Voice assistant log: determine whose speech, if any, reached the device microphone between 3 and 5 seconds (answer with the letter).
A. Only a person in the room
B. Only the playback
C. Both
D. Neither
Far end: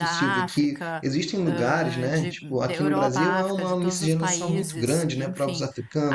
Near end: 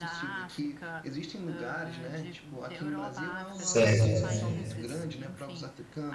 C